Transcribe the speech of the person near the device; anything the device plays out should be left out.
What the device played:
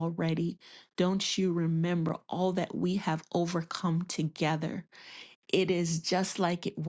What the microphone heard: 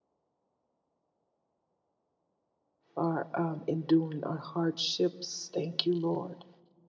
are um, enduring are hardships. Thank you, Lord.

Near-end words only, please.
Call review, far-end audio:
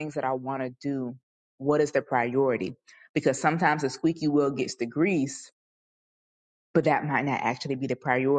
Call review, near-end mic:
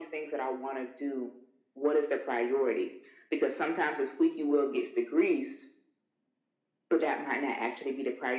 none

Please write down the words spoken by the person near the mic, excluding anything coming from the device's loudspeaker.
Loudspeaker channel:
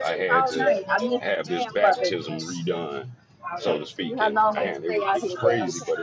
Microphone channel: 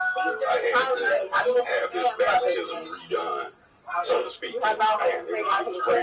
none

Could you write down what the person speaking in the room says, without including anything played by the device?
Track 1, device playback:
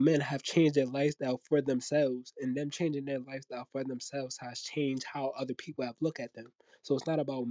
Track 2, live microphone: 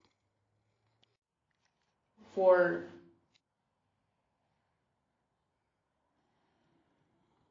for

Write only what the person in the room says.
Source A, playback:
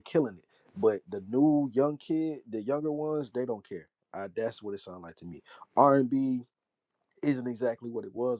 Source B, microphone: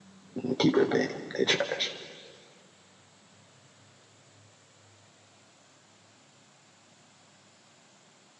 I'm gonna keep it a bean. They trash.

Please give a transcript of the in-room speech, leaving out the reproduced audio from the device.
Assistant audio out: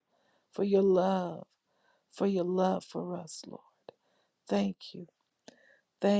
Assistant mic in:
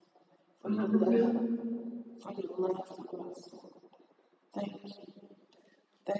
hallelujah,

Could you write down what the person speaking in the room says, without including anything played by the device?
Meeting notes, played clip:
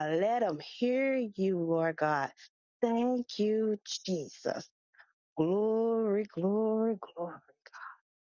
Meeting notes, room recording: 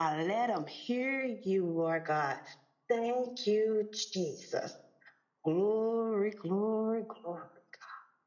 none

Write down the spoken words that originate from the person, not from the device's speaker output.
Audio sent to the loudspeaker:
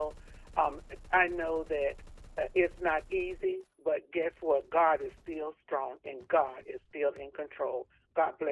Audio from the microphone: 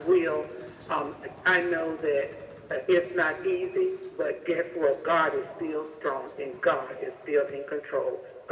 none

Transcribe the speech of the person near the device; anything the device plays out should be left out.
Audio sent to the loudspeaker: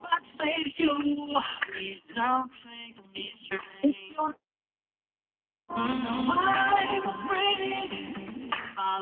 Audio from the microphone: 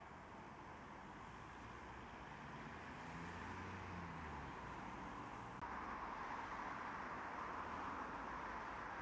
none

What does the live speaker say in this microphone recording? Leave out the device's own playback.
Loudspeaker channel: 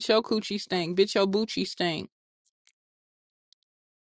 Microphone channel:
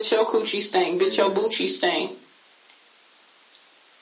gang gang.

